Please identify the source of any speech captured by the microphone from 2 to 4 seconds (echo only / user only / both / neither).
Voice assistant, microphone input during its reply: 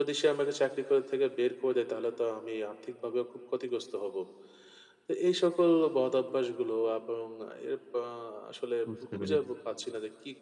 echo only